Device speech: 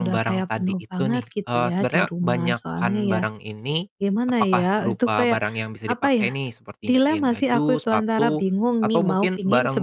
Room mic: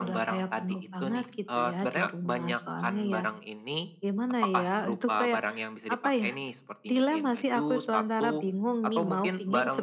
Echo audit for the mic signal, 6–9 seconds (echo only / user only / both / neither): echo only